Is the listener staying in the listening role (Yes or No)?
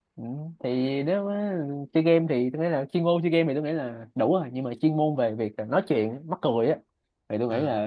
Yes